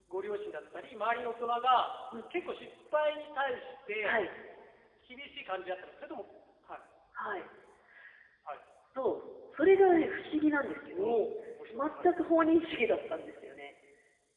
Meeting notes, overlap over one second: none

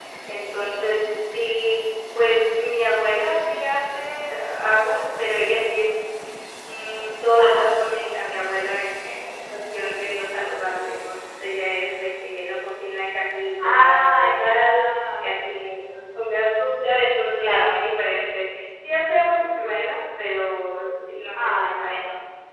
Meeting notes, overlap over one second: present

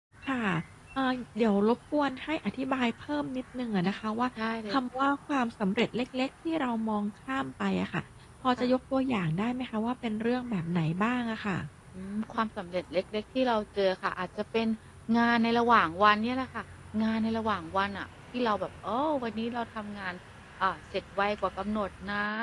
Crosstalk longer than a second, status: none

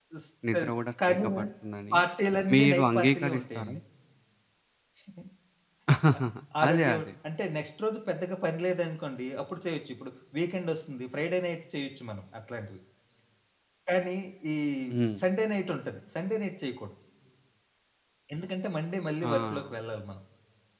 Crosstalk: present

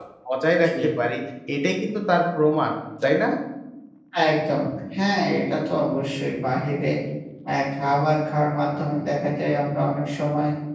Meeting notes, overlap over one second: none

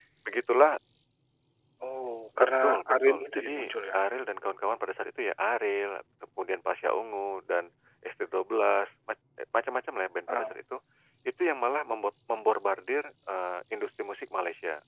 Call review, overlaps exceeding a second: present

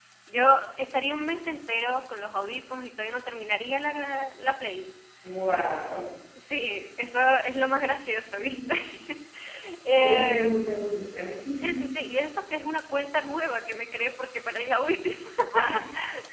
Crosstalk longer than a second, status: none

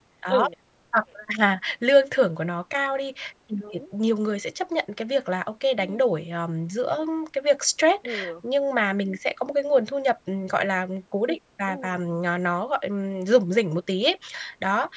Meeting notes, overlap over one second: none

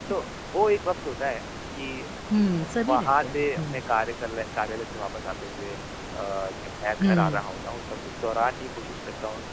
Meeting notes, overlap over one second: present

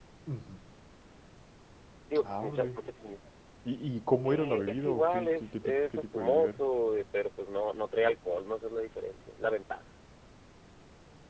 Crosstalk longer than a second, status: present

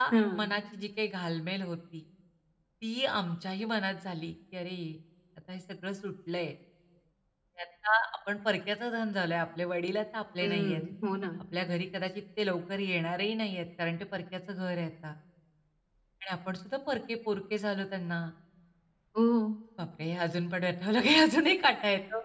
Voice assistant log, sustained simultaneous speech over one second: none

